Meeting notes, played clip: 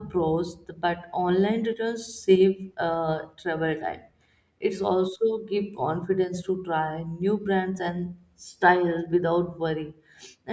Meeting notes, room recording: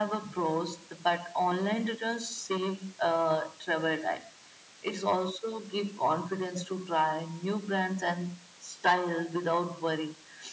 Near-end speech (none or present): none